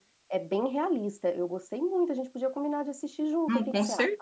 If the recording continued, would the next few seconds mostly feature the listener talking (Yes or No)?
Yes